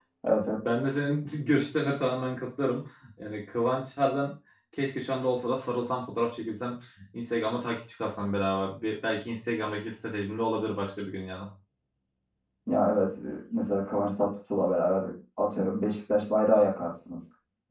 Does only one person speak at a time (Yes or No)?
Yes